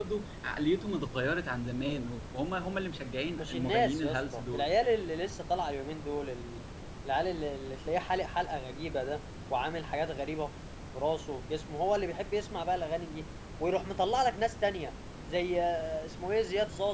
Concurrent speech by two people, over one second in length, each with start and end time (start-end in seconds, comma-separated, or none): 3.4-4.7